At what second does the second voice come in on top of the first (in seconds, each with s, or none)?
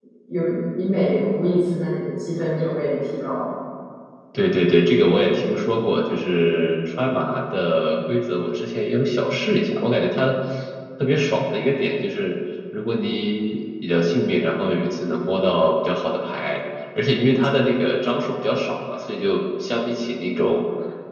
none